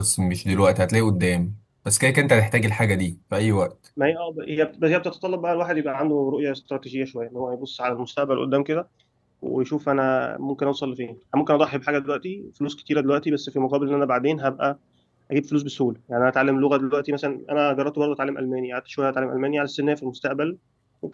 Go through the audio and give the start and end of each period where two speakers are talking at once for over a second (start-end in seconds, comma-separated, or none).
none